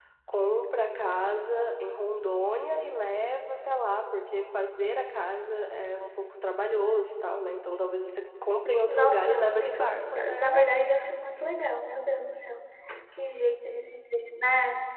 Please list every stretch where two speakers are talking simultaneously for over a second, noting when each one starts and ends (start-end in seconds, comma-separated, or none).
8.9-10.7